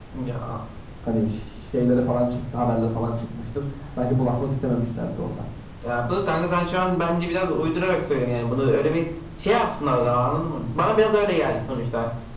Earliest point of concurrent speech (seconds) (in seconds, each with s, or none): none